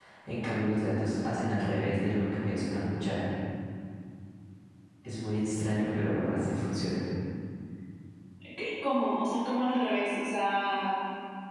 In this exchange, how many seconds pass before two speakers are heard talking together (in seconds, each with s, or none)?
none